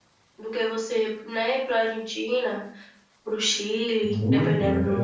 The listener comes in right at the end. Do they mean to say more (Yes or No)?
Yes